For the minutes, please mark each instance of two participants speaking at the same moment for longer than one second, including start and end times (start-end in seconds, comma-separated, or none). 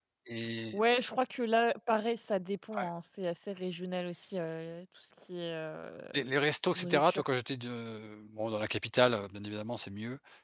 none